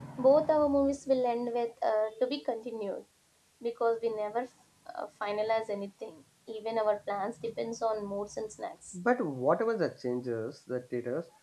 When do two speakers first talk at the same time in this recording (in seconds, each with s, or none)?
none